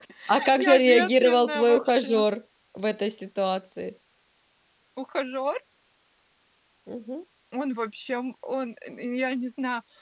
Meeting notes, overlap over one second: present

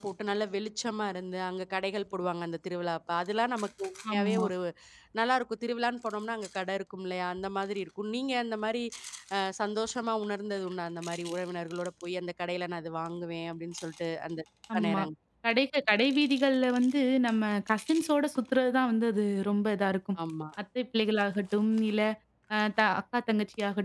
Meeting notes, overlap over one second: none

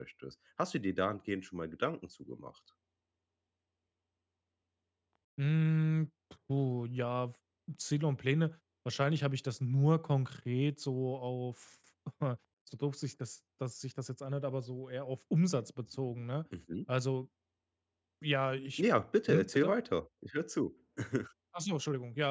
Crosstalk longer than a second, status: none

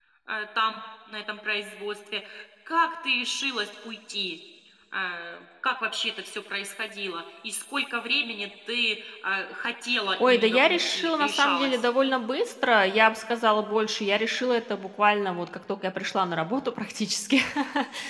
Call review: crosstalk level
present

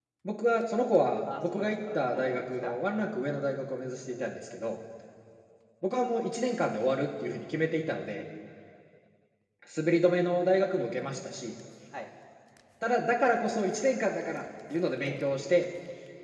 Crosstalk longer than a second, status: present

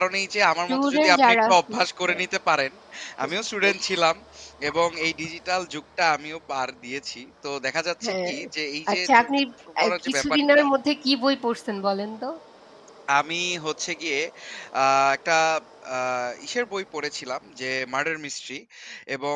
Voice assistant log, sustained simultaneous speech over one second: present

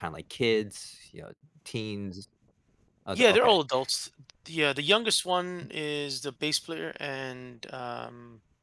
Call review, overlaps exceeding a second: none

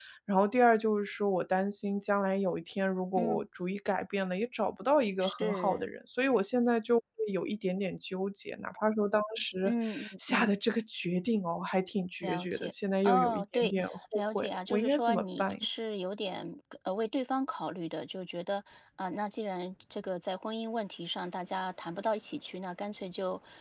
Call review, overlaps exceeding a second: present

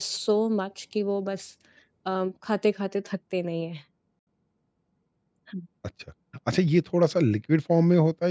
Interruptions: none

